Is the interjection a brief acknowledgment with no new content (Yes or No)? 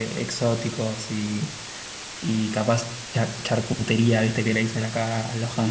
Yes